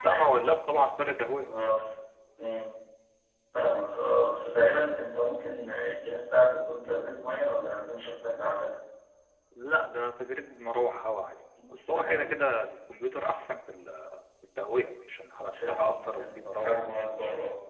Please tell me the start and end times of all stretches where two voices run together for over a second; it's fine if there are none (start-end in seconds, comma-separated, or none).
15.5-16.8